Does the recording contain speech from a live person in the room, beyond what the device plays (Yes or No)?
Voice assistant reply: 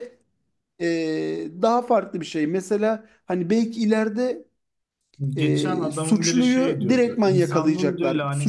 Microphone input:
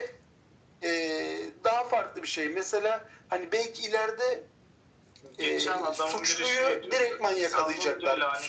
No